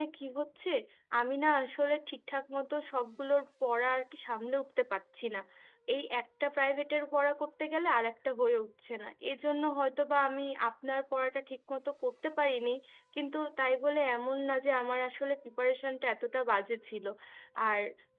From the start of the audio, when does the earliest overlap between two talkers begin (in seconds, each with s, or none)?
none